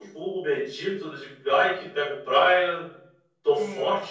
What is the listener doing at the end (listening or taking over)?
listening